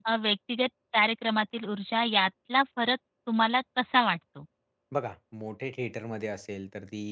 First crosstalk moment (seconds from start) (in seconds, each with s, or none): none